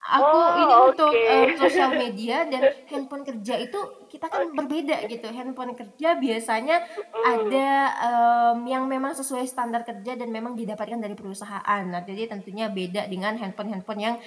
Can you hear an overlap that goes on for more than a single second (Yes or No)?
Yes